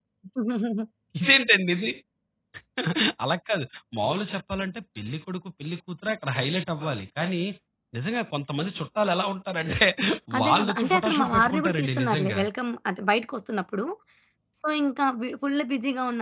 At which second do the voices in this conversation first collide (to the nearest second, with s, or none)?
10 s